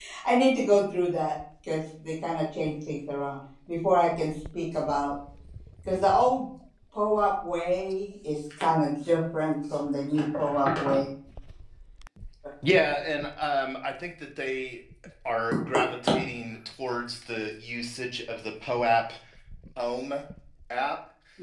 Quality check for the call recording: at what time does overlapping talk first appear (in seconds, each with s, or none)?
none